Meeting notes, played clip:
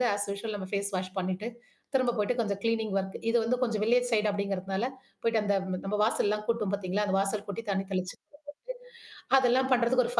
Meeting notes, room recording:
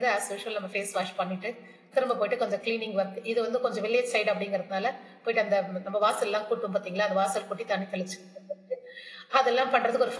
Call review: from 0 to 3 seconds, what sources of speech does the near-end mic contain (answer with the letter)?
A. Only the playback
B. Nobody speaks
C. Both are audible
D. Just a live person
A